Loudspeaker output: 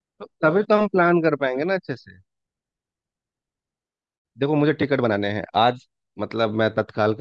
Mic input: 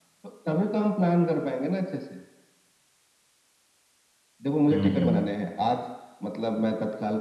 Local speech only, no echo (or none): हम्म हम्म हम्म